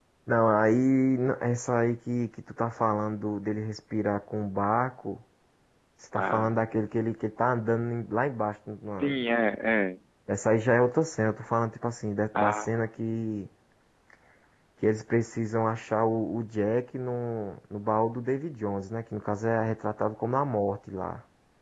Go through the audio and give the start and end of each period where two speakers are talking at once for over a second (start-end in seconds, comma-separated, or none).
none